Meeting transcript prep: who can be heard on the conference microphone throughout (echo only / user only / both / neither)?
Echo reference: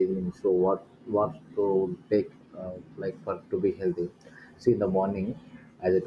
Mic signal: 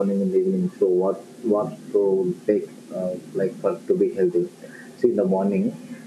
echo only